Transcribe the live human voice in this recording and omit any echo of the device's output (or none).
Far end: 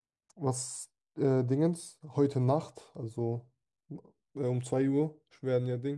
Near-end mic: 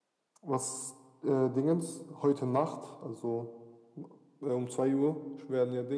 none